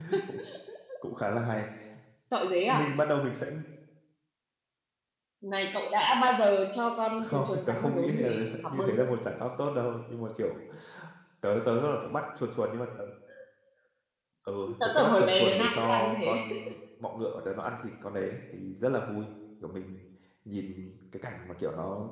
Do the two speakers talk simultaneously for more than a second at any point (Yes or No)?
Yes